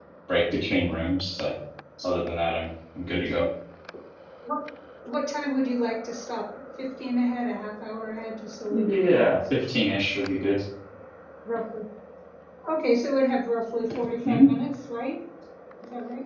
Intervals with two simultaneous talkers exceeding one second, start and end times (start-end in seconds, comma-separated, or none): none